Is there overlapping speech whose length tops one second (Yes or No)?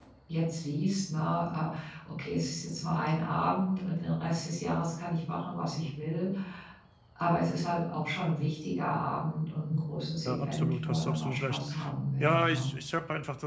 Yes